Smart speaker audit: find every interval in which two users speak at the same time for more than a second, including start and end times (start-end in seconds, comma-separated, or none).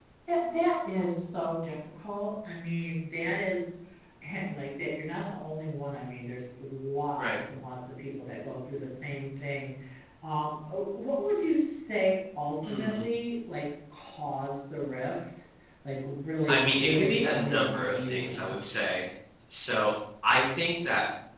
16.5-18.6